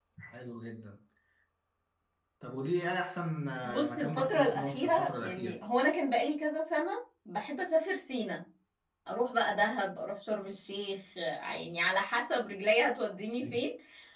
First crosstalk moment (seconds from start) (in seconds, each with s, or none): 3.6 s